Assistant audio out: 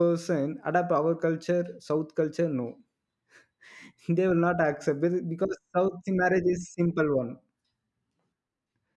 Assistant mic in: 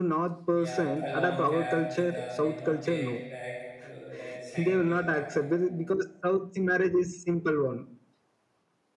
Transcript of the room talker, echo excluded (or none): yeah, a long cap with a you know tail back to that is hanging to his back.